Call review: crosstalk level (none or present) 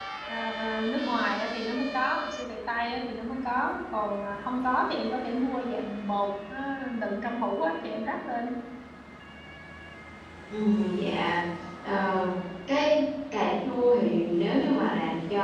none